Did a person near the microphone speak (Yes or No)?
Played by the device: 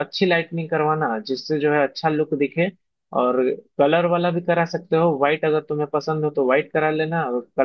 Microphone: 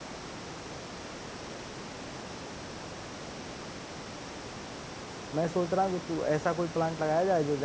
Yes